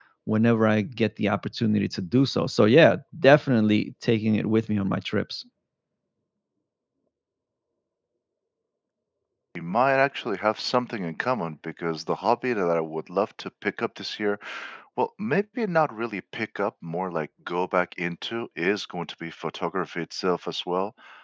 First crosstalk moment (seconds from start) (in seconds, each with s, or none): none